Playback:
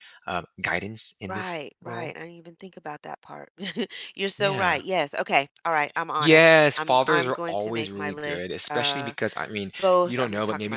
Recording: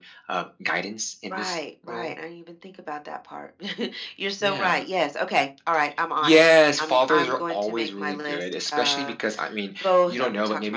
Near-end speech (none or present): none